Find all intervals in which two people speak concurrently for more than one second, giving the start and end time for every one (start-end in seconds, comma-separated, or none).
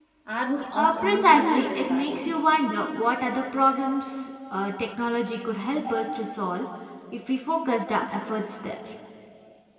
0.8-2.3